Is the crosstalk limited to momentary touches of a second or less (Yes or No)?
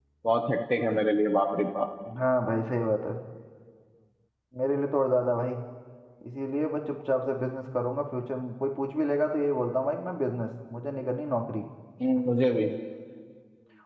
Yes